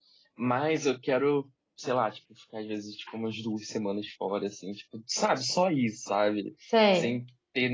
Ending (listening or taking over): listening